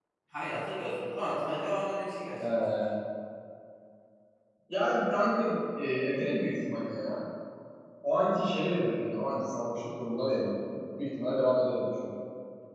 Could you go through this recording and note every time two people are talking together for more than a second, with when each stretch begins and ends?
none

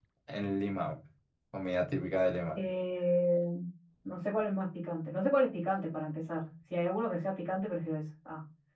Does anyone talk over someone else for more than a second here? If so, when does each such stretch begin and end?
none

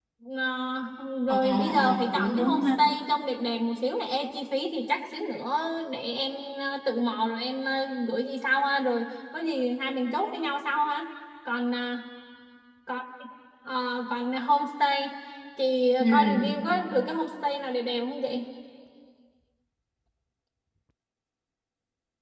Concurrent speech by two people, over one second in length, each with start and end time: 1.3-2.7

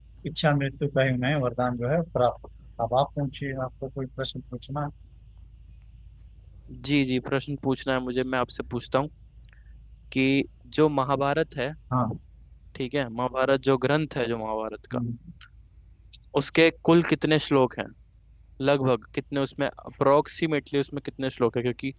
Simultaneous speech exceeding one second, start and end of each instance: none

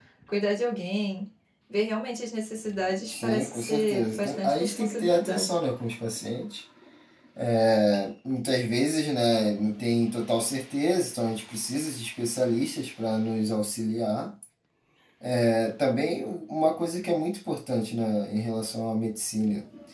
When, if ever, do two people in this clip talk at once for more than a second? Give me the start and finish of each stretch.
3.1-5.5

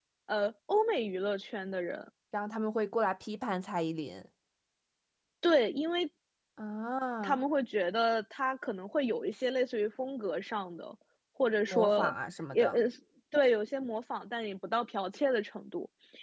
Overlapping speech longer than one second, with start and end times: none

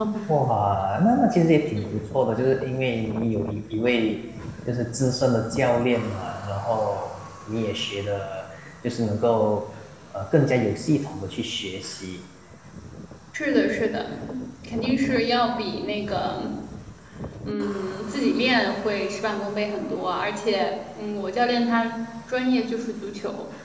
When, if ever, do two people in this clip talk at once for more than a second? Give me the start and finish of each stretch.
none

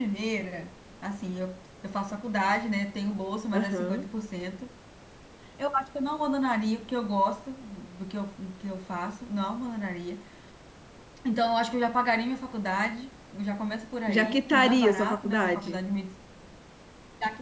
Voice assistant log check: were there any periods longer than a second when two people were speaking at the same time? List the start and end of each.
14.1-15.8

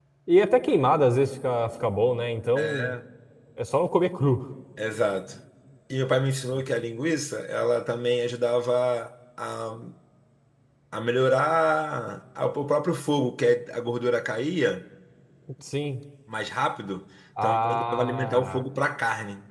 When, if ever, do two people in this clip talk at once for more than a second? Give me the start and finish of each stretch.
17.4-18.6

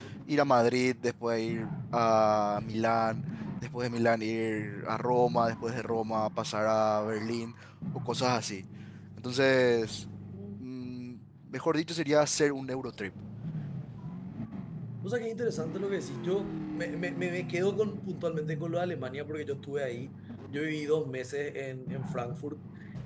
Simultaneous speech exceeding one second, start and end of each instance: none

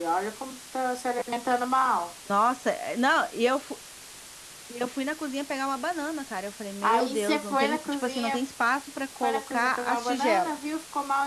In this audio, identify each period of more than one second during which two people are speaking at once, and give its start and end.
6.8-8.4, 9.2-10.6

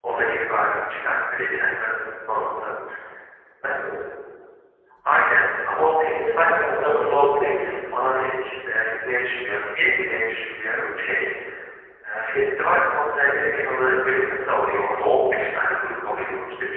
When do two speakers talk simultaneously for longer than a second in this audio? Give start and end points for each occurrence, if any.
6.2-7.7

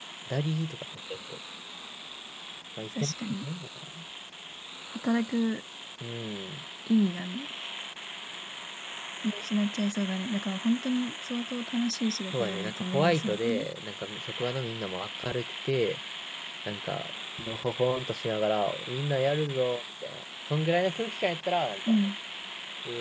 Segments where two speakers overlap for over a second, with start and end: 12.4-13.7

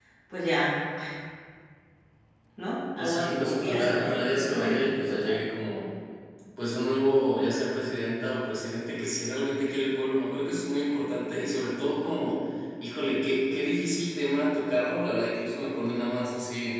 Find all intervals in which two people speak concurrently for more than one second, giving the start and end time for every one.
3.0-5.4

